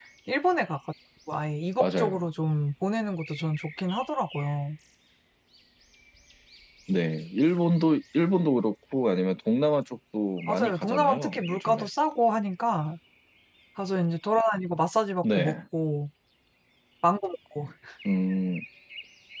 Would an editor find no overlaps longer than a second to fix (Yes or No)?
No